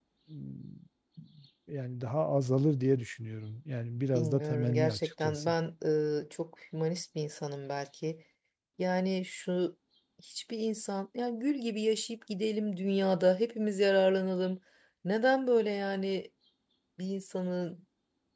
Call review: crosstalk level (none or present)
present